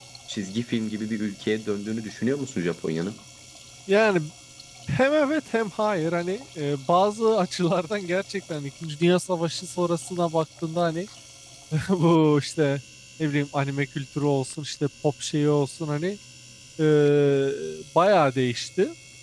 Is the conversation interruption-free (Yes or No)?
Yes